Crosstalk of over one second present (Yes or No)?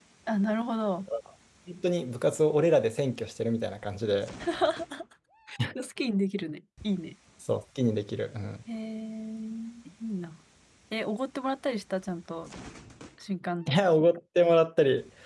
No